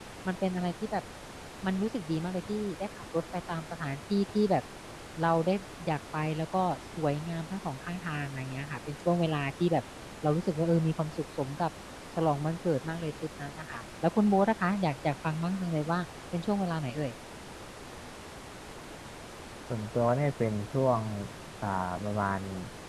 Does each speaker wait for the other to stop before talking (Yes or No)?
Yes